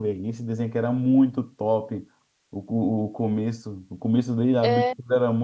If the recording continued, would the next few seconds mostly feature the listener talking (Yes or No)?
No